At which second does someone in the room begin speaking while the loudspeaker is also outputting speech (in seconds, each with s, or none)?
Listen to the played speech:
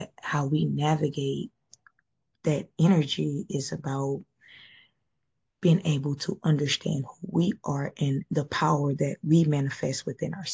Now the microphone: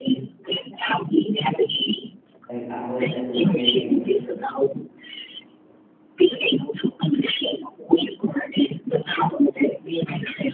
2.5 s